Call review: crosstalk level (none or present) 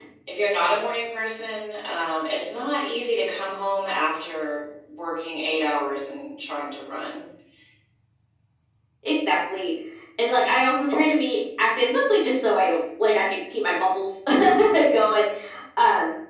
none